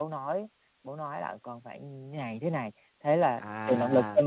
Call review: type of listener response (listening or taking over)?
taking over